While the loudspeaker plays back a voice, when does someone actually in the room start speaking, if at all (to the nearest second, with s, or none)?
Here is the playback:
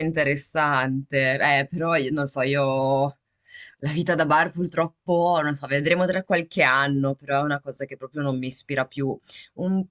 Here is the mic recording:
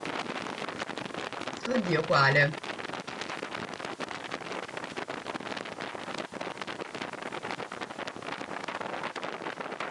2 s